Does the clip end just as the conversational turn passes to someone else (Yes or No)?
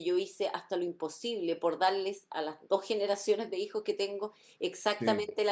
No